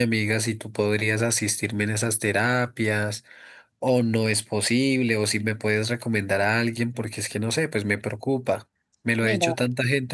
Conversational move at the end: listening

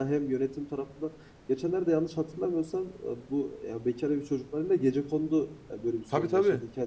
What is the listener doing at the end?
taking over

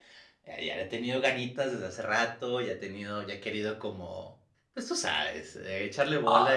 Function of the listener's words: listening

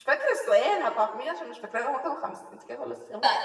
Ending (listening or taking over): taking over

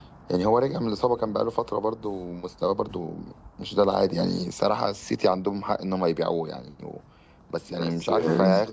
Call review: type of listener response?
listening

